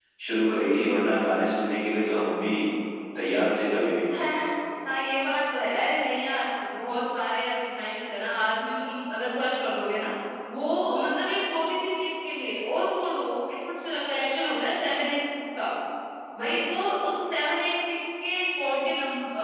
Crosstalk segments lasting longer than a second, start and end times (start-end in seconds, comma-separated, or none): none